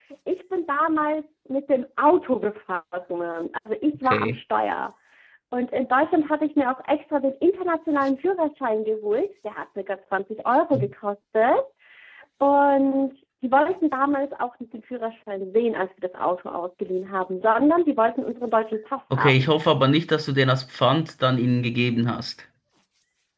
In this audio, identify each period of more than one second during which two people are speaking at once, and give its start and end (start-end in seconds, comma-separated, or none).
none